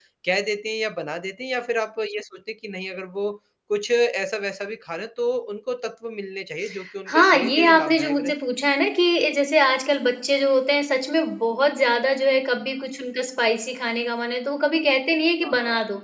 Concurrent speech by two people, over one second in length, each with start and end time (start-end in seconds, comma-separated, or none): 7.1-8.3